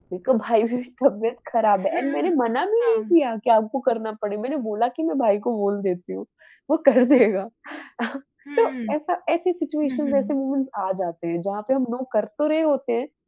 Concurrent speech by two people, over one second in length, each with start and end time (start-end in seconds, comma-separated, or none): none